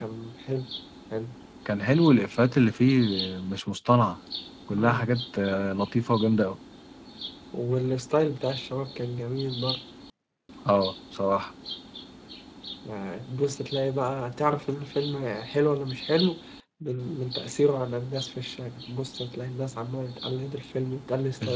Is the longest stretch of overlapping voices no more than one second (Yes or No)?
Yes